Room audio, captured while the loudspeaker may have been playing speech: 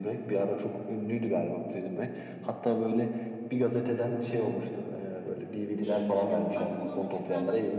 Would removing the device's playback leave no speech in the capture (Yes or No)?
No